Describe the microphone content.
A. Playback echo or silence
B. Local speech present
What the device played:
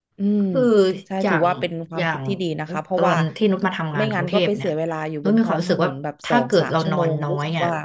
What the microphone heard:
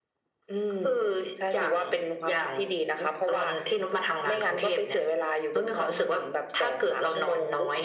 A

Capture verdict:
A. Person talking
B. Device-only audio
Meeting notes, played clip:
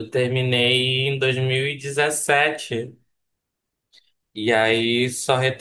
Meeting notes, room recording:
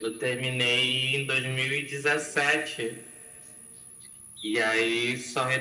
B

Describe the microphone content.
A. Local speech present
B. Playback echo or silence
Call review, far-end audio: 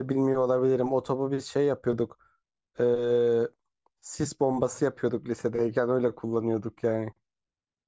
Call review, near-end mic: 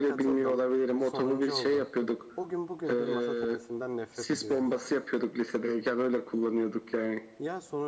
A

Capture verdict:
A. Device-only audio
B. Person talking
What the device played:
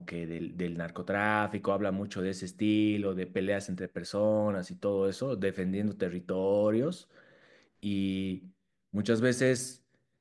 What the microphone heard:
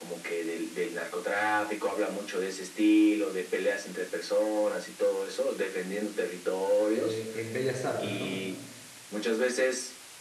B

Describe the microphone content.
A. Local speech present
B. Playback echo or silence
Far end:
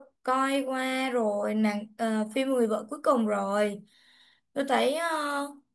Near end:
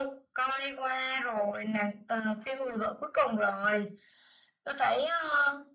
B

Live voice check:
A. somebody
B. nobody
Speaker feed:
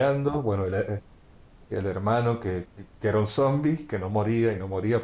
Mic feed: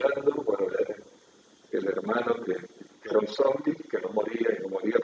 B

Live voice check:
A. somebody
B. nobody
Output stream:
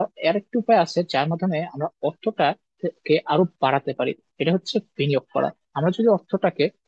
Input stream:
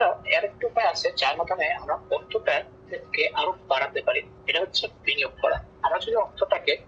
B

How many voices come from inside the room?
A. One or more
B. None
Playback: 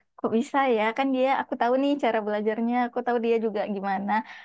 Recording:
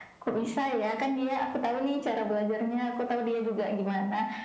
B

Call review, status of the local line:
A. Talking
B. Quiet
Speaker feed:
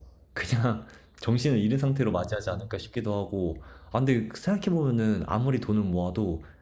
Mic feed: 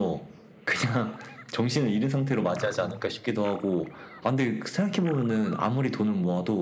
B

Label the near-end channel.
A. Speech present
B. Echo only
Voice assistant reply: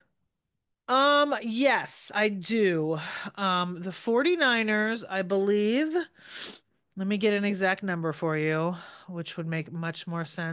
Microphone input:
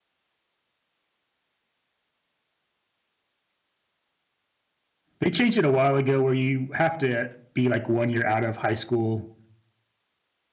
A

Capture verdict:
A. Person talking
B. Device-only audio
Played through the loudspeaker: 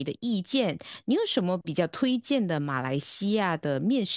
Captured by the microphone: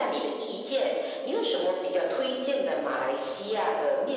B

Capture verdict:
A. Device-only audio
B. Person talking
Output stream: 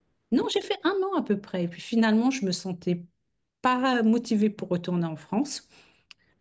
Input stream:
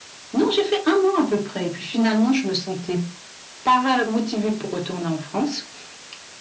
A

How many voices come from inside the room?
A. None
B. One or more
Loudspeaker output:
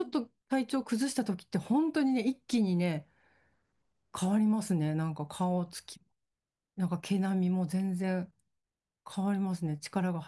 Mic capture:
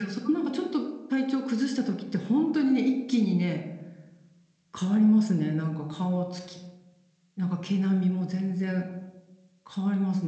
A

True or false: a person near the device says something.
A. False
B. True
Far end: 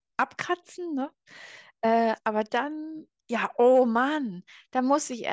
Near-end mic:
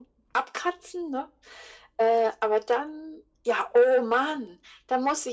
A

